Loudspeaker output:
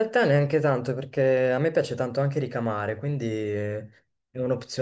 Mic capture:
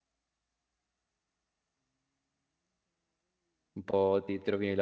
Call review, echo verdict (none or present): none